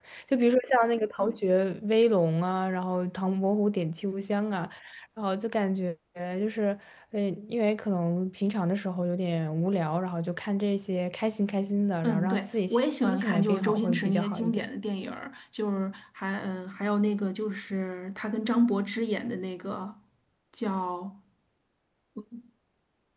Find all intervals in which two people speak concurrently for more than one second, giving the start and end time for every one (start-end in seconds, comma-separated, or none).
12.0-14.6